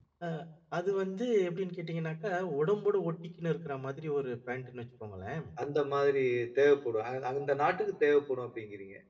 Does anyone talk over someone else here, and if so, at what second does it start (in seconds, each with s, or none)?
none